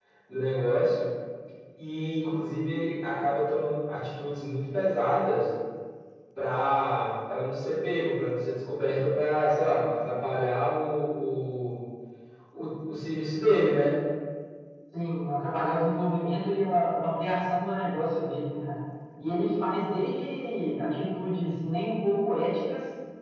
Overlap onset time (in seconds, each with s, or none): none